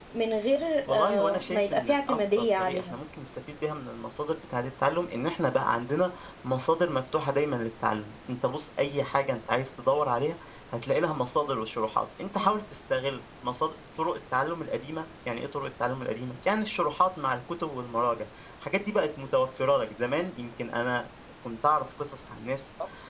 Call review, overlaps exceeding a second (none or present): present